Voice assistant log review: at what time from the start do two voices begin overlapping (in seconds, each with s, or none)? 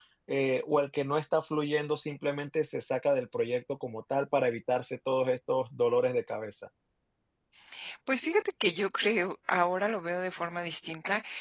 none